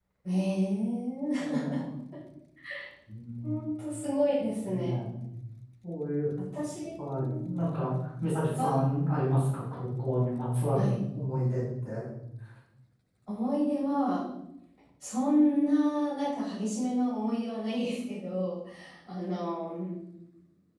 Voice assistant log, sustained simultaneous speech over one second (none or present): none